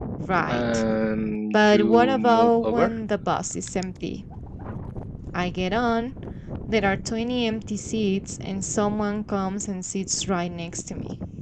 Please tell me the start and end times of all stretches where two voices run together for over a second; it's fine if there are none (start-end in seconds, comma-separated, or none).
1.5-2.9